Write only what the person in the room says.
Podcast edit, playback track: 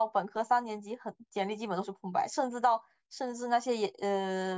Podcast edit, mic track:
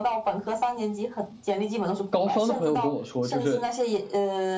高双的朋友跟我说，就是，

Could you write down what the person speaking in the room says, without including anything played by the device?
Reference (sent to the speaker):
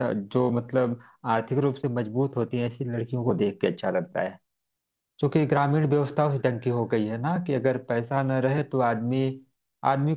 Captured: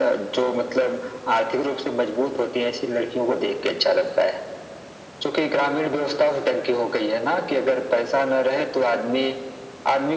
none

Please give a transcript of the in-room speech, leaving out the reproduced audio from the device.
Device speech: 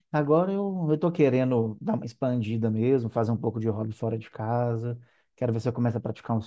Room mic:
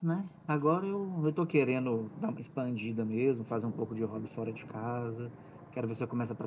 none

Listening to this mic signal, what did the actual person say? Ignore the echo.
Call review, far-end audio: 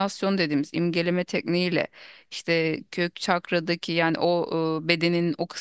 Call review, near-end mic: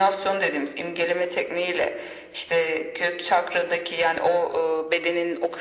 none

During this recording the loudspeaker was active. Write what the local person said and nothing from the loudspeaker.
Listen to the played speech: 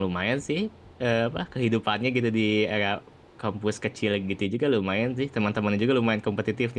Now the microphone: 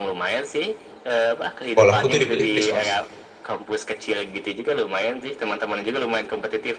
sekolahku tuh di blacklist, Mas.

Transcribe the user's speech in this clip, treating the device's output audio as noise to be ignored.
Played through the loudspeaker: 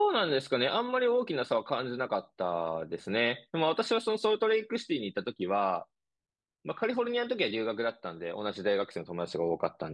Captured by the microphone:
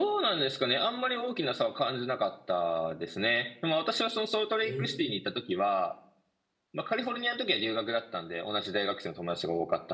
い。えー

